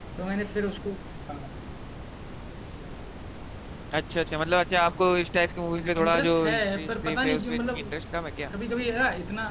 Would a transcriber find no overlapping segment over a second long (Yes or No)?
No